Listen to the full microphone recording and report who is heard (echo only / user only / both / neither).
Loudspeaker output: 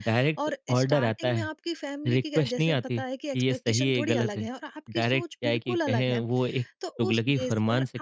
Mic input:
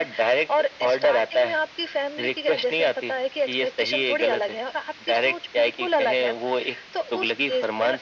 echo only